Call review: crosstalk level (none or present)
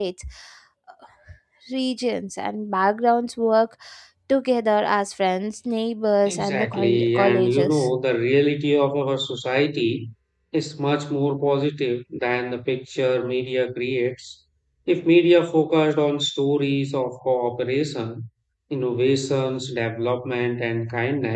present